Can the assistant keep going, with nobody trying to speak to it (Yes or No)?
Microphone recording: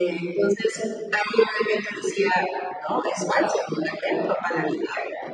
Yes